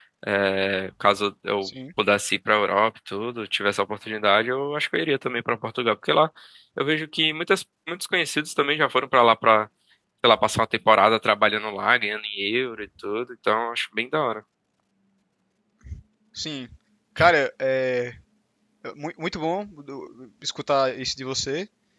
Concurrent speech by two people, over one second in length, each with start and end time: none

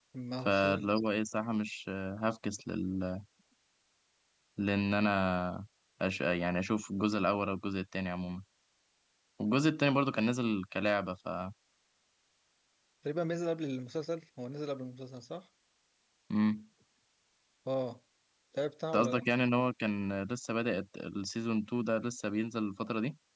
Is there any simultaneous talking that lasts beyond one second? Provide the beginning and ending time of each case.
none

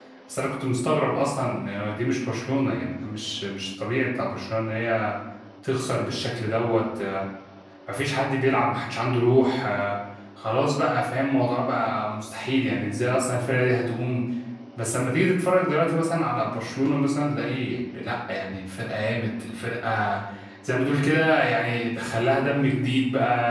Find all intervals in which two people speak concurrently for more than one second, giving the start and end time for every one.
none

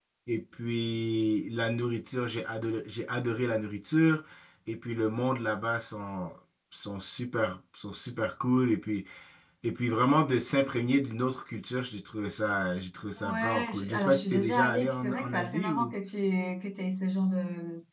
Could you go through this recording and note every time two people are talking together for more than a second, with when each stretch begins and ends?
13.2-15.9

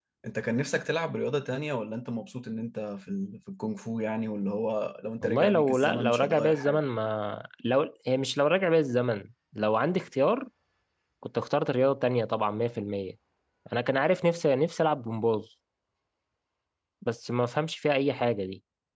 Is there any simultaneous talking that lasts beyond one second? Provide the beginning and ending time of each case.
5.2-6.8

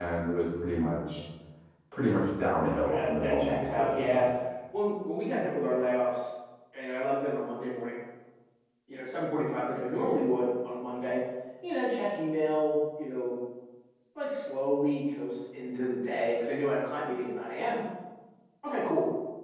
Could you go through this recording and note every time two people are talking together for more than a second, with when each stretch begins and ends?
2.9-4.2

